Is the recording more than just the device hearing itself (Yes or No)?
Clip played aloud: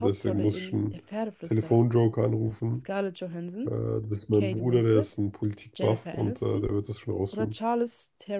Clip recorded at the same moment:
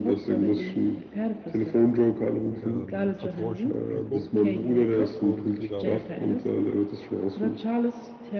Yes